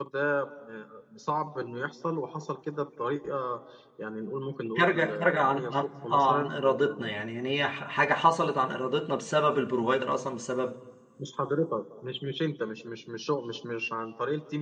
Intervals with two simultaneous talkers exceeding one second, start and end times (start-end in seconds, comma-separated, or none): 4.8-7.0